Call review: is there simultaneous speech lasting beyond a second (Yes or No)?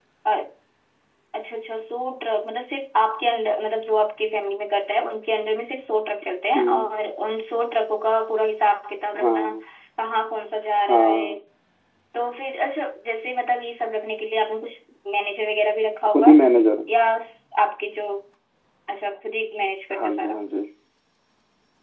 No